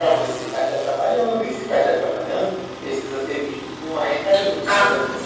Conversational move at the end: taking over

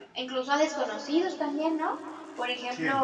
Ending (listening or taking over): listening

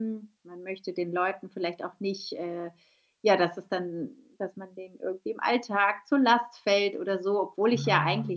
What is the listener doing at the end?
listening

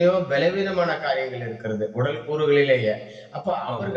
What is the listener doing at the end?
listening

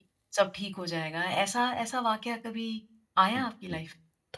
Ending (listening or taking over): taking over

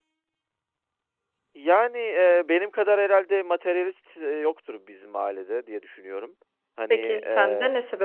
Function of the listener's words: taking over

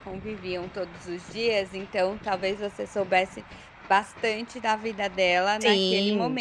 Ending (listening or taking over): taking over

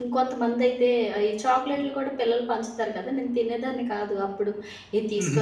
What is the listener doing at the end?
listening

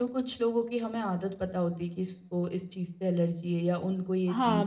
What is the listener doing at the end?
taking over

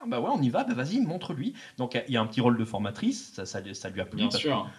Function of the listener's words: listening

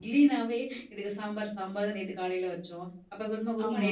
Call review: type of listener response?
listening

